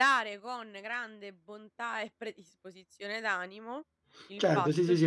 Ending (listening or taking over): taking over